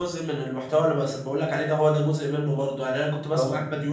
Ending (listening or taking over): listening